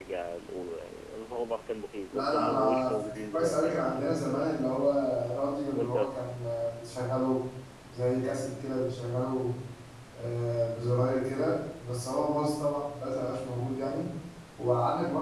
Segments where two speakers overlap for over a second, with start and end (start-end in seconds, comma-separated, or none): 2.1-4.5